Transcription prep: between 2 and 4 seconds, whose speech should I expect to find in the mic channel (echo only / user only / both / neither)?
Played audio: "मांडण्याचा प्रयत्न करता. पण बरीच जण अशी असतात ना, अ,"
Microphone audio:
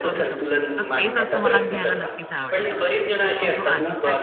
both